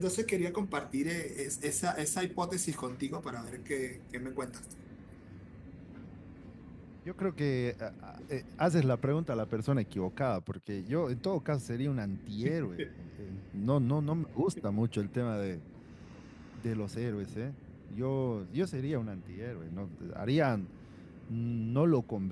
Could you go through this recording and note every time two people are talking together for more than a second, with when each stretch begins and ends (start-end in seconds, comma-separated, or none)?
none